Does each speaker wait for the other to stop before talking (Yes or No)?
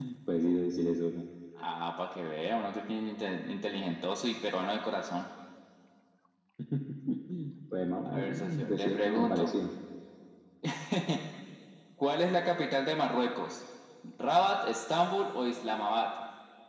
No